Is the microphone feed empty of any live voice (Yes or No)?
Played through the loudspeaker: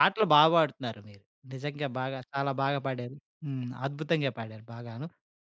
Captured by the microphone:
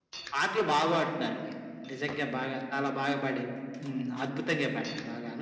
Yes